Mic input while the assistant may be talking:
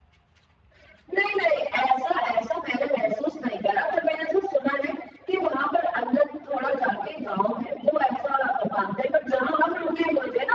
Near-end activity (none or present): none